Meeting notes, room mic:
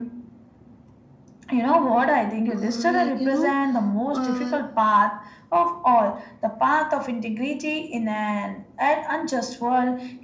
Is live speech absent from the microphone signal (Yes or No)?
No